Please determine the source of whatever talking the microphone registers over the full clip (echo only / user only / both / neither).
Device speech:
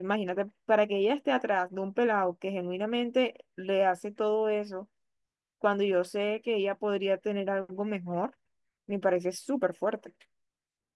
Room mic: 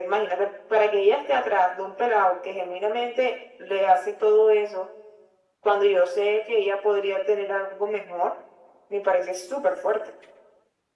echo only